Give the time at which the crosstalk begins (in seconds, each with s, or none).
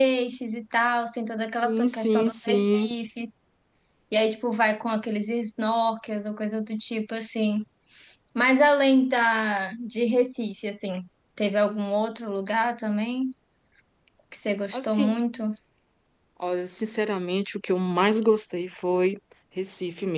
1.6 s